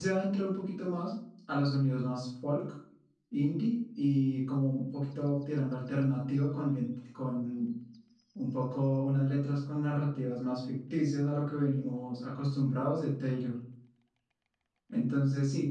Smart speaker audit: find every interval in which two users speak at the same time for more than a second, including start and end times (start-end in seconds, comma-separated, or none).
none